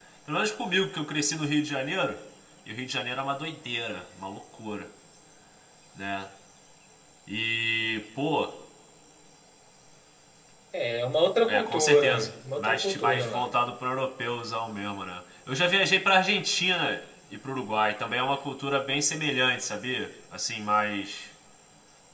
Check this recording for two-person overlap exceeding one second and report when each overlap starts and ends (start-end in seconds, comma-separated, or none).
11.5-13.5